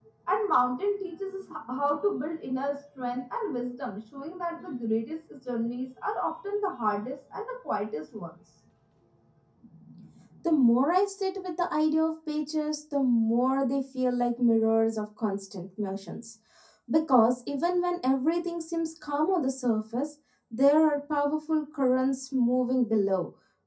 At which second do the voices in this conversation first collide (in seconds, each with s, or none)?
none